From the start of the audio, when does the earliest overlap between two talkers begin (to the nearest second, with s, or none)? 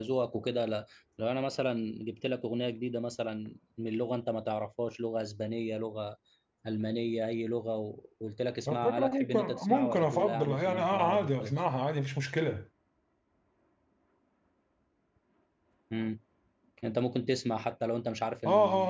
9 s